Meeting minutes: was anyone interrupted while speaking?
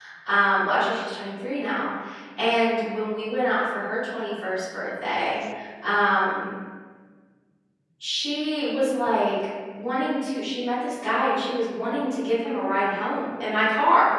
No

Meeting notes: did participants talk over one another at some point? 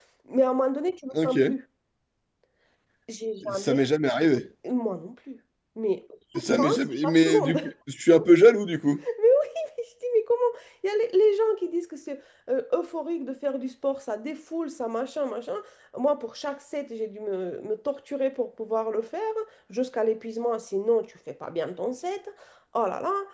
Yes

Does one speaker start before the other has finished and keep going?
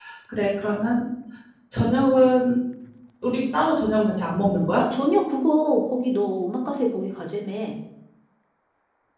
No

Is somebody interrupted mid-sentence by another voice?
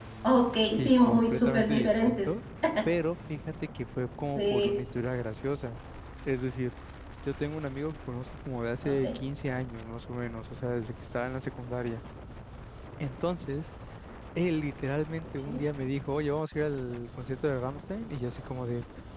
Yes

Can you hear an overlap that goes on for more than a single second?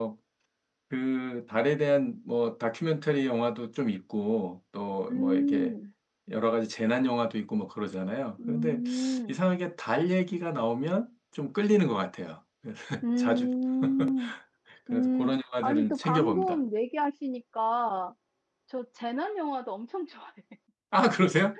Yes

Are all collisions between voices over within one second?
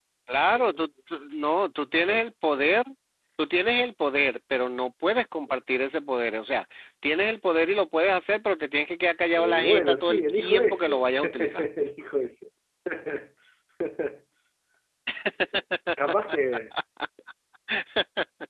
No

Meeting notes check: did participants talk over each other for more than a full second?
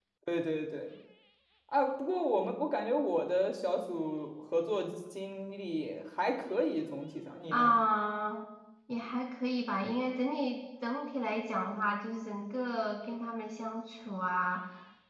No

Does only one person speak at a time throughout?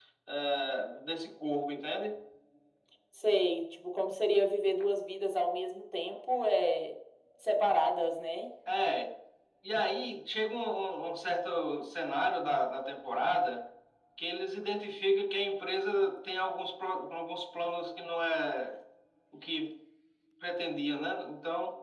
Yes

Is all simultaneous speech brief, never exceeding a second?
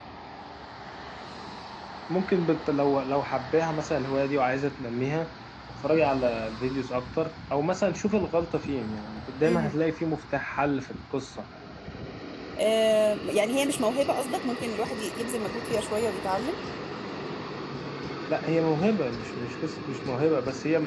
Yes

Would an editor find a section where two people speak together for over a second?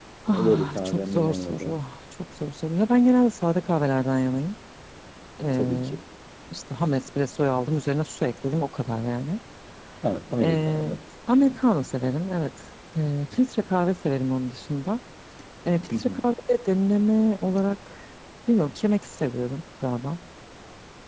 Yes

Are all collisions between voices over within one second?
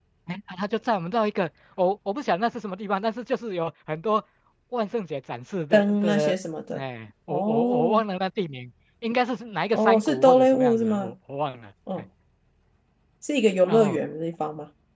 No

